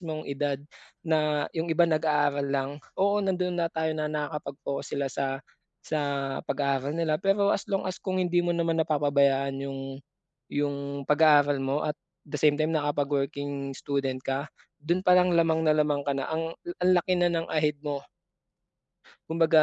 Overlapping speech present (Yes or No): No